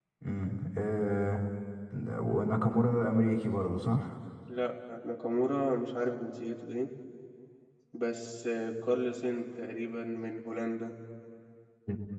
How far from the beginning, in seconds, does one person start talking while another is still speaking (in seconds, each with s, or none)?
none